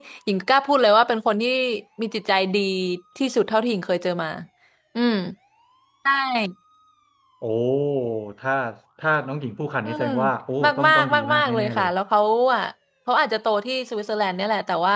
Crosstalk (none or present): present